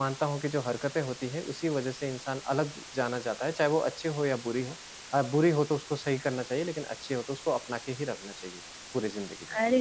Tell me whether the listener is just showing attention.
No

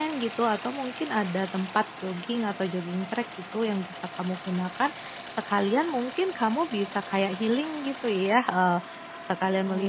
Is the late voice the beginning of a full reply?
No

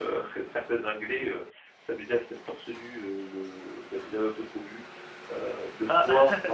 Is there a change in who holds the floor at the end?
No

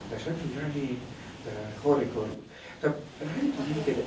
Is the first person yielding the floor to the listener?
No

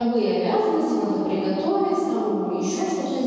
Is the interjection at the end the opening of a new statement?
No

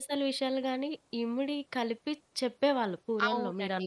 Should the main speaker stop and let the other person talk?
Yes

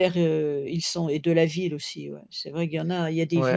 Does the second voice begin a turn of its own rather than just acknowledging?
Yes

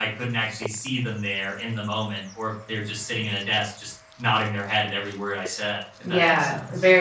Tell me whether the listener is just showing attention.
No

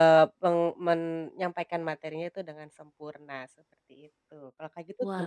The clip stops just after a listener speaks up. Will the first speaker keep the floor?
No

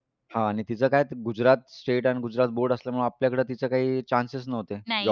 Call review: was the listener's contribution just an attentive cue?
No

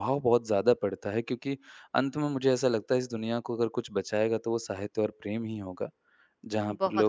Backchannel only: No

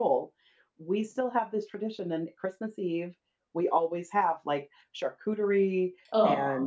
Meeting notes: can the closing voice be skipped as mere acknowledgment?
Yes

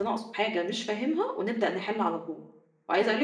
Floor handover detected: No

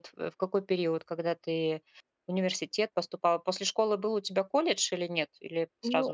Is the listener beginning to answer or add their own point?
Yes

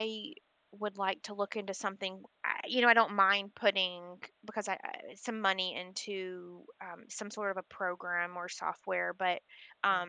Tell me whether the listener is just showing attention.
Yes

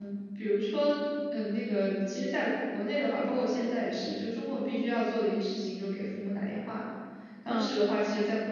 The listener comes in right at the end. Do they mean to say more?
No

